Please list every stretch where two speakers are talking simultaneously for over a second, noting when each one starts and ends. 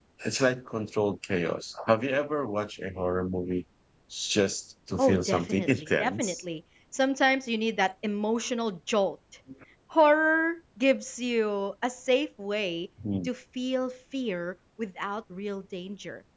5.0-6.4

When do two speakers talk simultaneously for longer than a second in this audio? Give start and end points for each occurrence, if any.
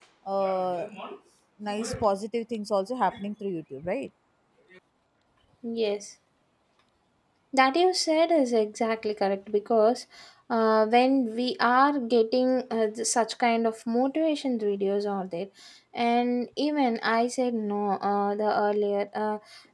none

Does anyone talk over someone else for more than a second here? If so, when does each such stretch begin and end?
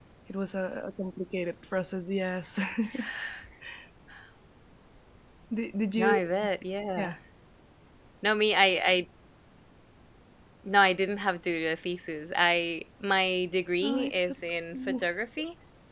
13.8-15.1

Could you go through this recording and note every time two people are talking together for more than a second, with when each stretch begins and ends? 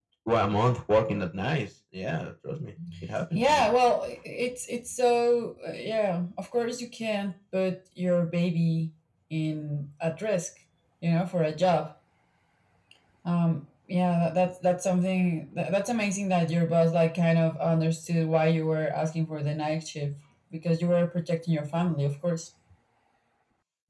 none

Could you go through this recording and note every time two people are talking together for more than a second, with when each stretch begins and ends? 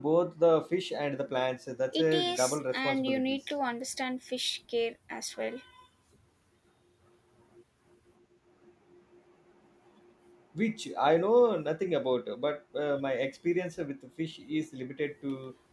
1.9-3.4

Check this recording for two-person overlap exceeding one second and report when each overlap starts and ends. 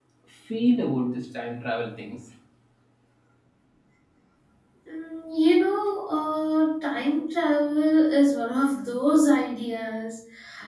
none

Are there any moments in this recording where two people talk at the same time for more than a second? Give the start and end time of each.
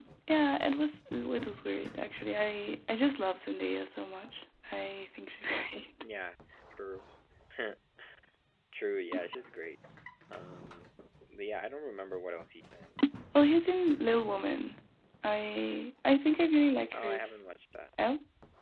none

